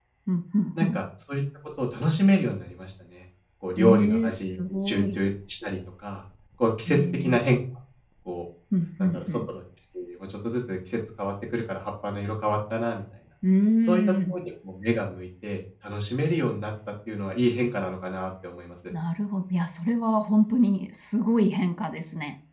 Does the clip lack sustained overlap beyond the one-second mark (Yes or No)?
No